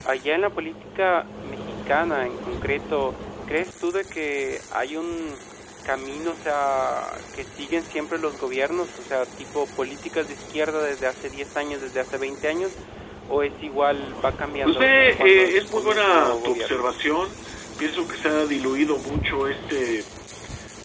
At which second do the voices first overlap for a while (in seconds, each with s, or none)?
14.7 s